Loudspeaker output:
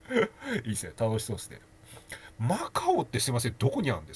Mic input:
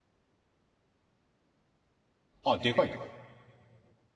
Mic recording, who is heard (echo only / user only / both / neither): user only